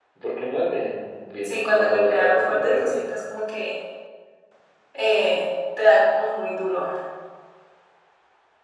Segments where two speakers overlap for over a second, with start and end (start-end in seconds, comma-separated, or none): 1.4-2.9